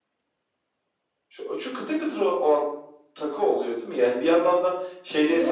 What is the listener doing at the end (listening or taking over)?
listening